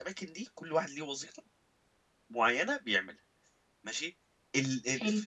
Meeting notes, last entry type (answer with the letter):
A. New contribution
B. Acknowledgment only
B